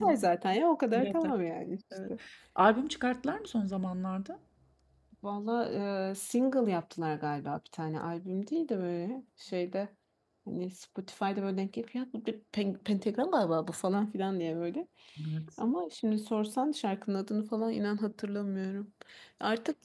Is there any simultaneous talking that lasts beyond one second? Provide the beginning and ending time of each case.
none

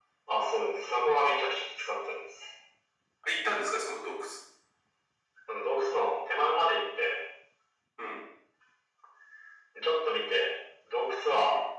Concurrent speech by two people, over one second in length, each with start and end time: none

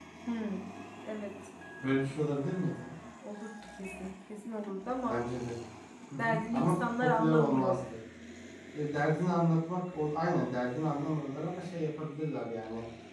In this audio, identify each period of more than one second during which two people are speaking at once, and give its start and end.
6.2-7.8

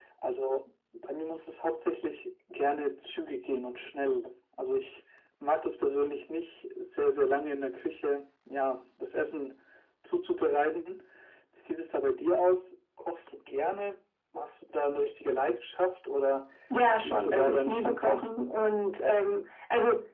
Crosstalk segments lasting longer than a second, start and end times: 17.0-18.3

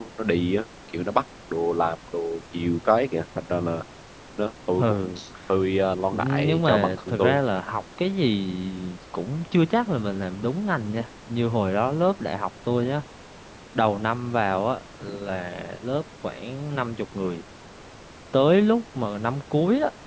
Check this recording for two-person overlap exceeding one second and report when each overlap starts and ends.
6.1-7.4

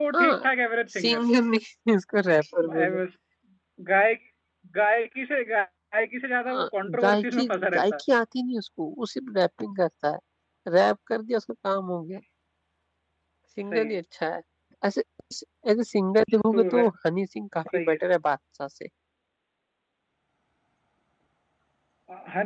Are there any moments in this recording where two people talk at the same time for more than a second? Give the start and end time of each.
6.5-8.0

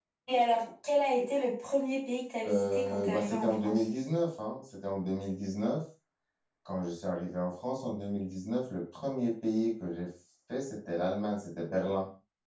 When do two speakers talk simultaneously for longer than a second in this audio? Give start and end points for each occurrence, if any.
2.4-3.9

